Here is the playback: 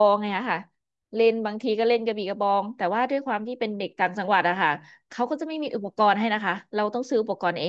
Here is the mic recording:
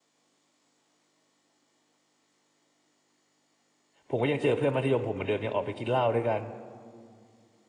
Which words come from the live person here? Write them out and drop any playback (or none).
ผมก็ยังเจอเพื่อนมัธยมผมเหมือนเดิมยังออกไปกินเหล้าด้วยกัน